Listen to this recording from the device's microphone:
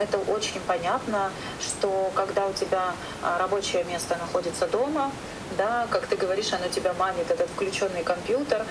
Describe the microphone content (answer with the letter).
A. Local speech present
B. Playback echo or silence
B